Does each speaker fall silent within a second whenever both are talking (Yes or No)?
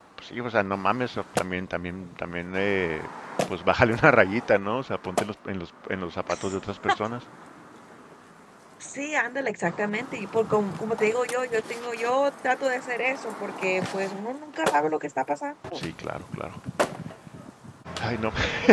Yes